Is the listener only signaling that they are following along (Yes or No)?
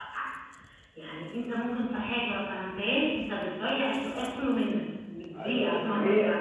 No